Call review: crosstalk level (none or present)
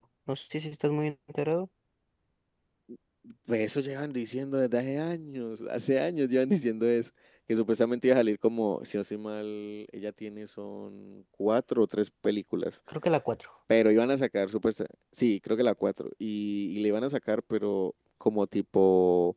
none